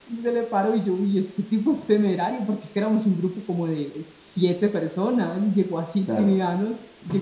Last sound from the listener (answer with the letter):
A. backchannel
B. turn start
A